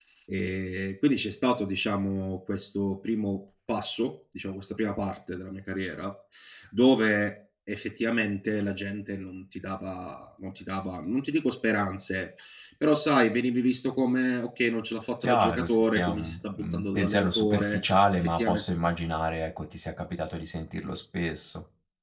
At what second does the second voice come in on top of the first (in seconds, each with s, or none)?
15.2 s